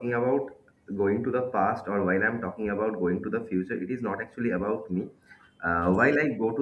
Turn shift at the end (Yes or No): No